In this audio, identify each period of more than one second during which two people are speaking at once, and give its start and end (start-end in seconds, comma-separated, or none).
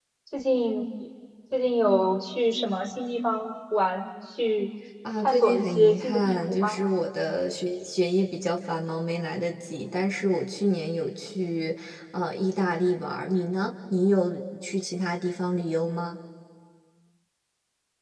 5.2-6.8